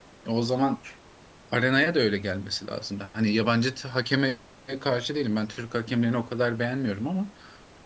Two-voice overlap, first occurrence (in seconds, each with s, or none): none